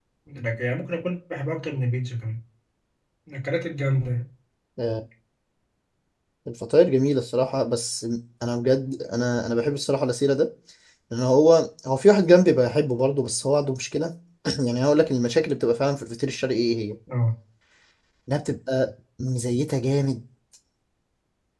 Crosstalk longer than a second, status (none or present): none